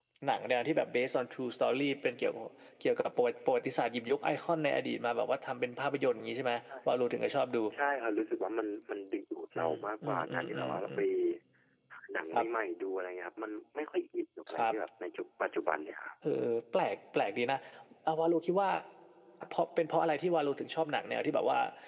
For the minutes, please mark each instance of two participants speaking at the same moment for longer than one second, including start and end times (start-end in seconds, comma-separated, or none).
9.6-11.0